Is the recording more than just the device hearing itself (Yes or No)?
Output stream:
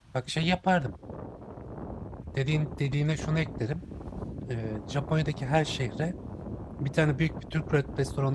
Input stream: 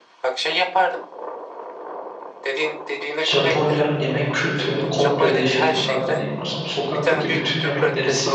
Yes